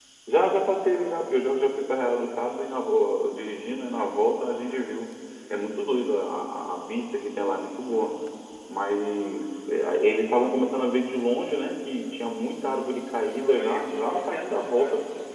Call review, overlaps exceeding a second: present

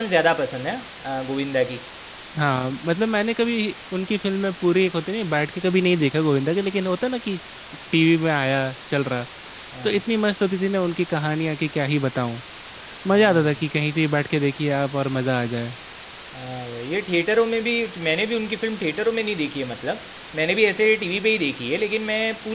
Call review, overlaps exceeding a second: none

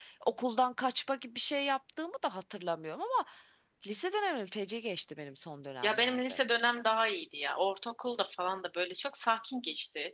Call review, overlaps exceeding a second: none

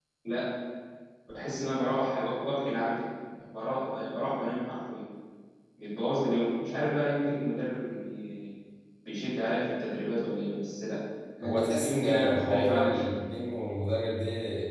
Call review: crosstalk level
present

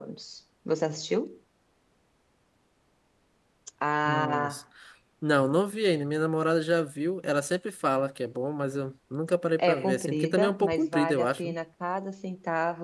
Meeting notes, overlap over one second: present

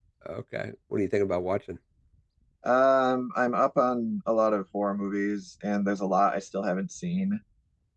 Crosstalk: none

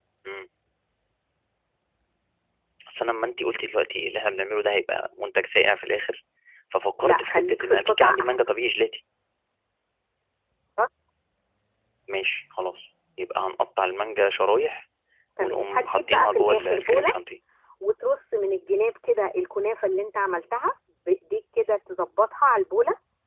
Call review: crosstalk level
present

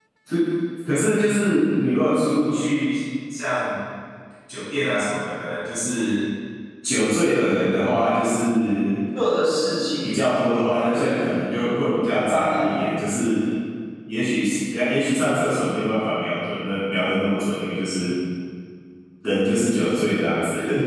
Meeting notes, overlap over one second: none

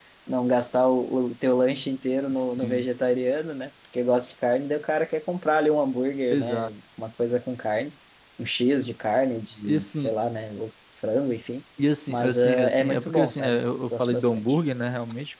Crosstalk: present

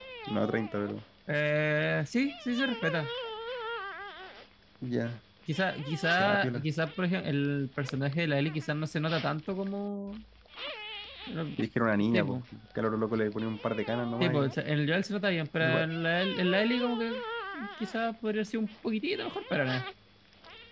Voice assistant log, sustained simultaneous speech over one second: none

